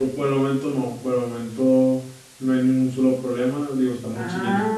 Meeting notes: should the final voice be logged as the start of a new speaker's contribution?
No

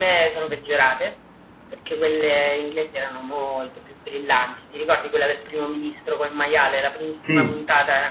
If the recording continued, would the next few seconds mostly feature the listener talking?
No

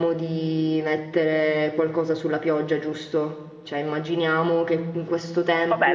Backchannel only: No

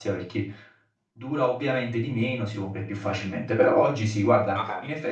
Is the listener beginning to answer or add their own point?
No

